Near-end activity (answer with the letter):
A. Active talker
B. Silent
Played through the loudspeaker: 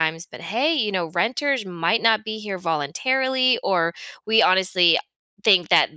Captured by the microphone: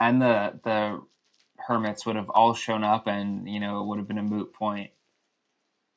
A